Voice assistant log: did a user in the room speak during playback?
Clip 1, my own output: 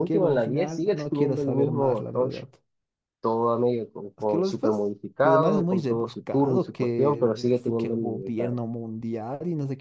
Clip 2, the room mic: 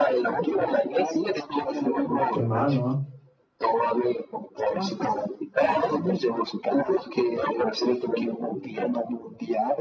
Yes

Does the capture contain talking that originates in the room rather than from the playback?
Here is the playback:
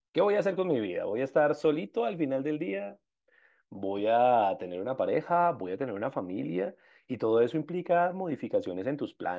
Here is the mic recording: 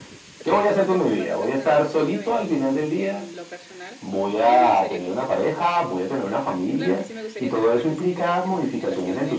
Yes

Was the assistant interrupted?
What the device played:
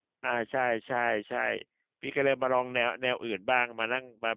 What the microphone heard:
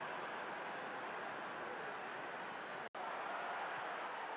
No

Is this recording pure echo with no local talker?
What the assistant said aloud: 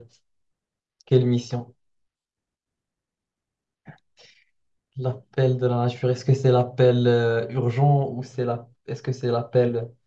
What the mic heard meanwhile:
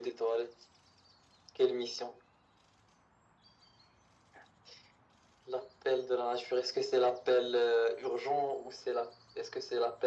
Yes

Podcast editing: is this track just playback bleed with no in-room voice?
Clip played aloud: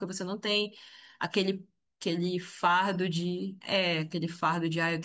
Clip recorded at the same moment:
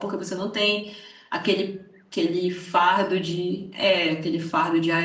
Yes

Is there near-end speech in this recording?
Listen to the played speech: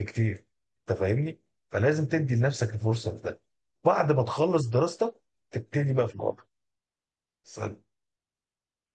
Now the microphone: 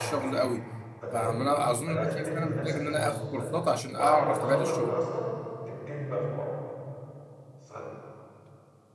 Yes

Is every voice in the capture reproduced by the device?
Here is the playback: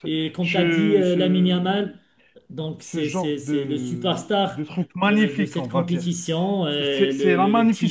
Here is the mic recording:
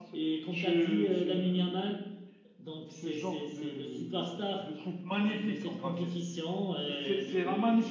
Yes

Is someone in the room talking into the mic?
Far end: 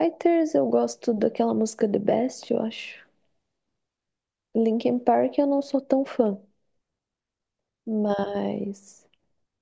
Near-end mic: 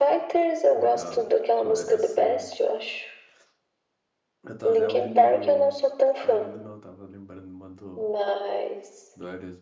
Yes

